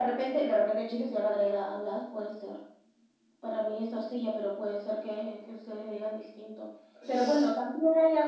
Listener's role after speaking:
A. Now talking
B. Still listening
B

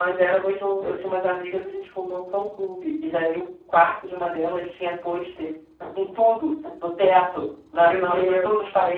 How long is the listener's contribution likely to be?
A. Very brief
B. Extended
A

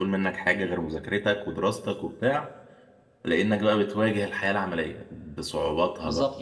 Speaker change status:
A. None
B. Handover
B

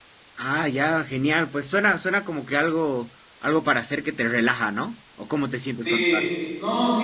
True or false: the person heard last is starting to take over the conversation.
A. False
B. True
B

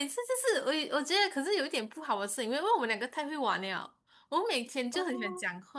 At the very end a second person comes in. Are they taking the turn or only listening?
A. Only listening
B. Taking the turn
A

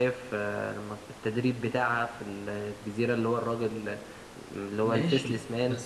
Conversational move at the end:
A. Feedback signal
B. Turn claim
B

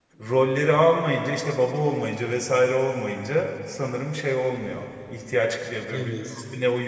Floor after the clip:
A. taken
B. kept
B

